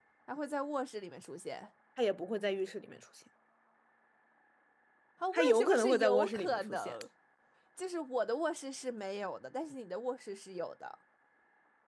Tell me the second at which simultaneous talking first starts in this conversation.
5.3 s

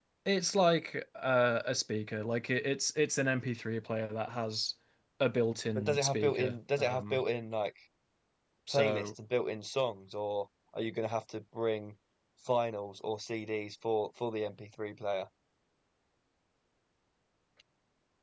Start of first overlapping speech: 5.8 s

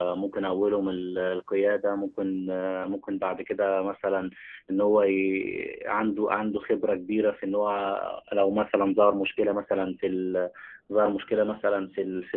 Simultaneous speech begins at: none

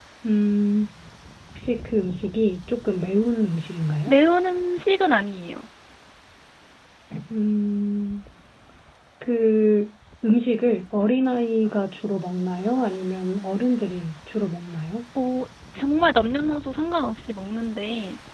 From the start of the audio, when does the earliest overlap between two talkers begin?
none

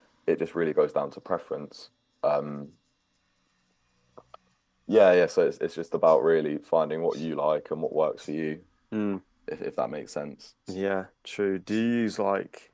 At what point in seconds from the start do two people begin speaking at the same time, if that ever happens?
none

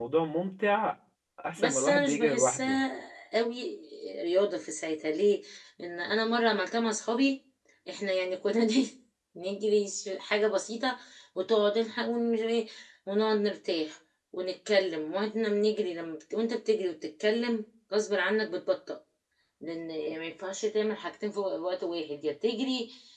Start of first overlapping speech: 1.6 s

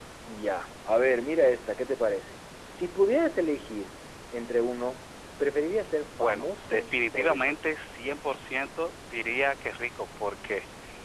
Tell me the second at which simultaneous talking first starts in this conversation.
6.1 s

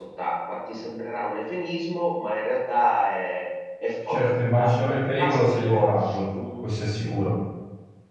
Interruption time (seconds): 4.1 s

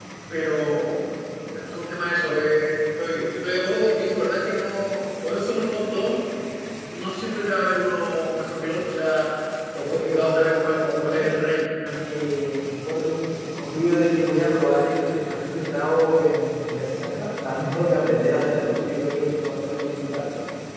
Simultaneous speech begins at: 9.8 s

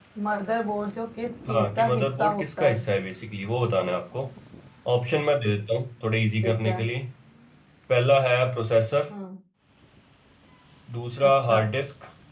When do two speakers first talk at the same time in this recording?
1.5 s

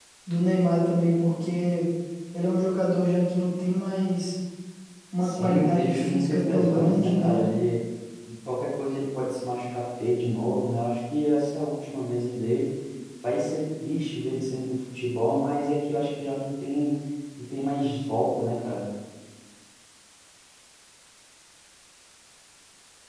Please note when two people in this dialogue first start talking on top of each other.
5.2 s

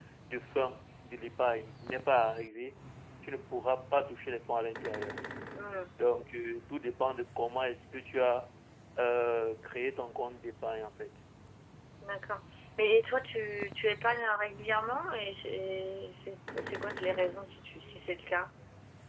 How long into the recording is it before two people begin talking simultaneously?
none

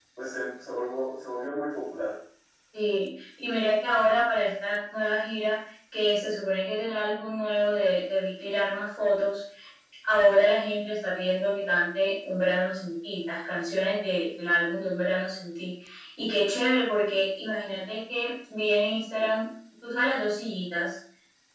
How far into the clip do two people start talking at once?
none

